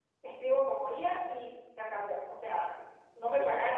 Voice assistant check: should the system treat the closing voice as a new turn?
No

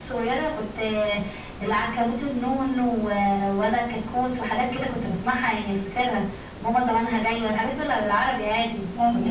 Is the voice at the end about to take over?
Yes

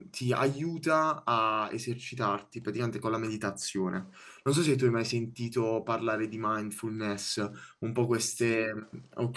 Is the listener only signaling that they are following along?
Yes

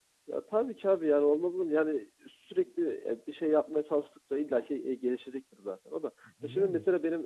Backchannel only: Yes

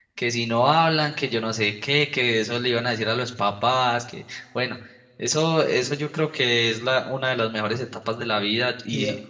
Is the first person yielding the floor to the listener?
No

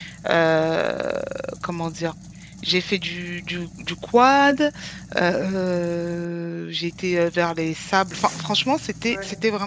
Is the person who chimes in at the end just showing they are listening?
Yes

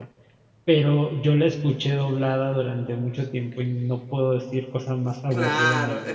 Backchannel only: No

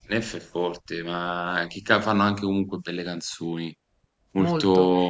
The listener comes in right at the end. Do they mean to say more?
Yes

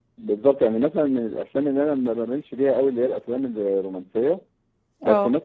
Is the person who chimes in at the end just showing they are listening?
Yes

